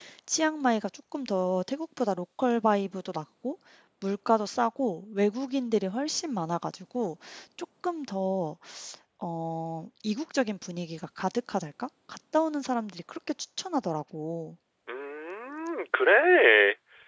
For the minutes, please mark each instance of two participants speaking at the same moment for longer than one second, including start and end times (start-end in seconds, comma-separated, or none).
none